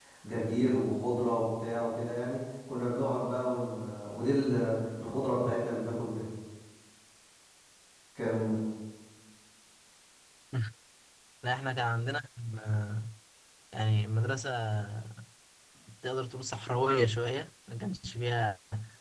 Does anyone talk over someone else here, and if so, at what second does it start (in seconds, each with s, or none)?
none